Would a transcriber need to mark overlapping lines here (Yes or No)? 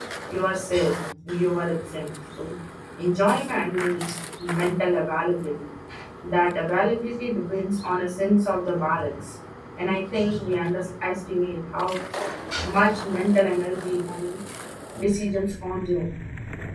No